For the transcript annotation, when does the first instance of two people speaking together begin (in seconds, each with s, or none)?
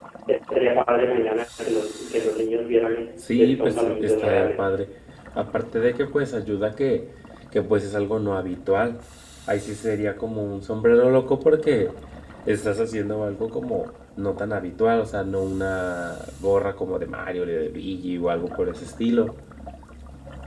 3.2 s